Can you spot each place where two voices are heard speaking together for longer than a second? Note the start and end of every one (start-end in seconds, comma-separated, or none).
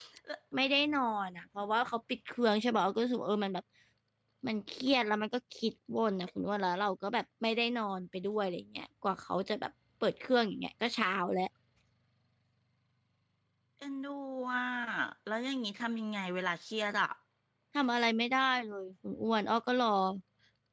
none